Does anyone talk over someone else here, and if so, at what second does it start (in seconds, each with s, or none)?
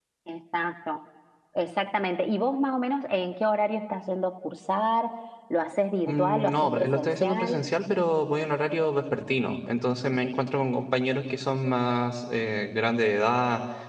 6.1 s